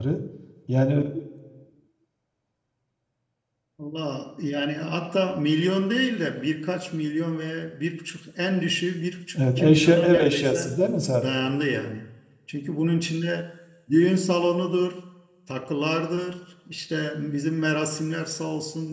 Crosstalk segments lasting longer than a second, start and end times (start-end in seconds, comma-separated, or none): 9.4-10.7